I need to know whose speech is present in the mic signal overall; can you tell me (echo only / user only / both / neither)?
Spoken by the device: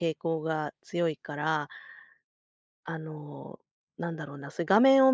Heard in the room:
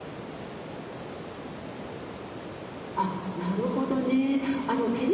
user only